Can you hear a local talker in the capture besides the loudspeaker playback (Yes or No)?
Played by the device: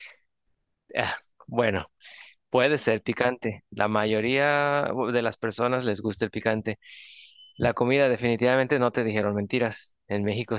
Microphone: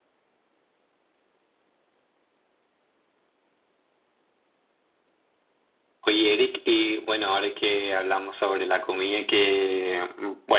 Yes